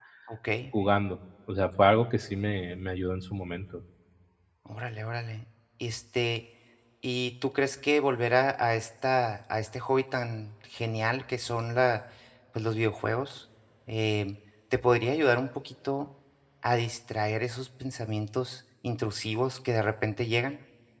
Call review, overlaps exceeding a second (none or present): none